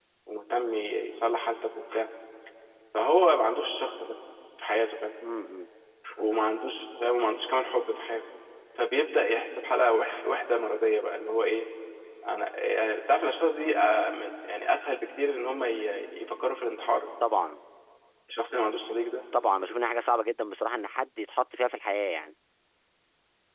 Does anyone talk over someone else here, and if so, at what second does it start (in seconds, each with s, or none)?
none